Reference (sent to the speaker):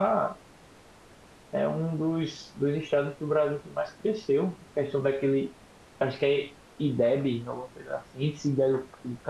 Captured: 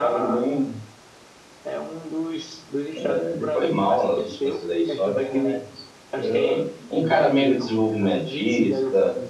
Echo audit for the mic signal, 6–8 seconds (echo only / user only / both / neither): both